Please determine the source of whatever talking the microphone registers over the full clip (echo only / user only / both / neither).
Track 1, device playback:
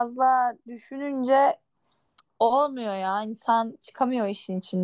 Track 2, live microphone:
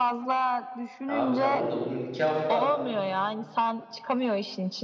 both